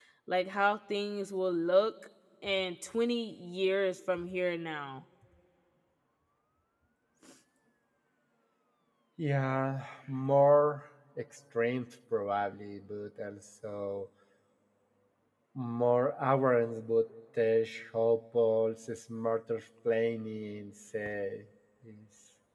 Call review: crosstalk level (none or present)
none